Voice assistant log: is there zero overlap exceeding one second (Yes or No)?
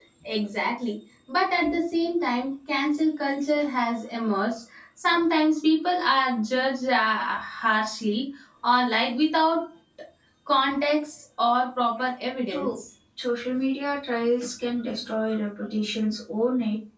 Yes